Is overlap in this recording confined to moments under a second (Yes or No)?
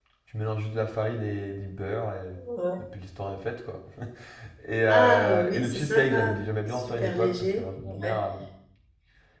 No